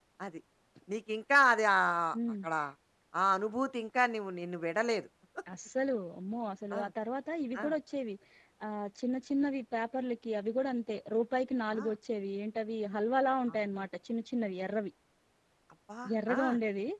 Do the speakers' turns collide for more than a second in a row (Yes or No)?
No